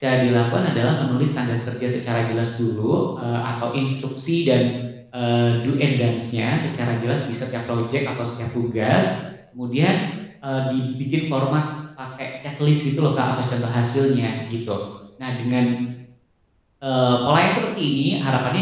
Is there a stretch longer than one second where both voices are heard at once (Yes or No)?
No